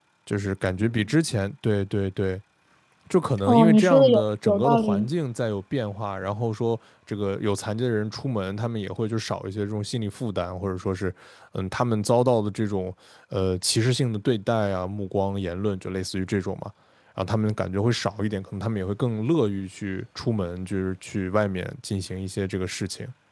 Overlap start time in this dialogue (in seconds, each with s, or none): 3.5 s